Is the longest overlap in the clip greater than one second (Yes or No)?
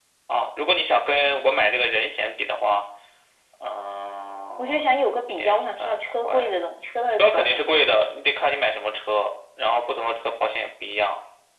Yes